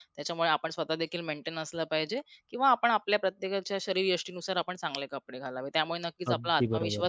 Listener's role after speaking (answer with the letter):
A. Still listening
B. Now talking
A